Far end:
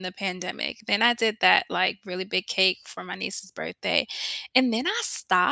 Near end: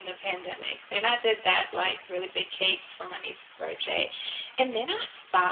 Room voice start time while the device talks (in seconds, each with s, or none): none